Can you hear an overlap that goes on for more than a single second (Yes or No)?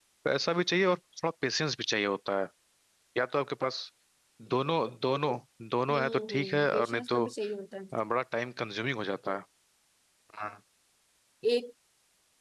Yes